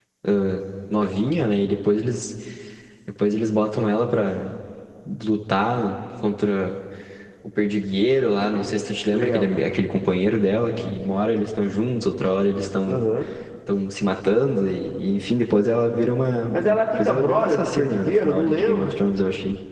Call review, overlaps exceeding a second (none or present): present